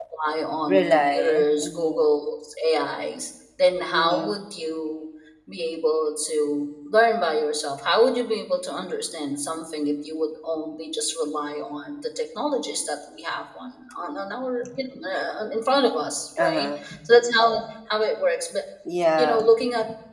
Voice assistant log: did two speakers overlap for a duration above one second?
Yes, from 0.7 s

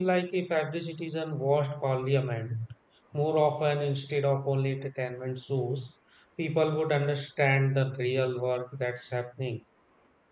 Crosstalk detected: No

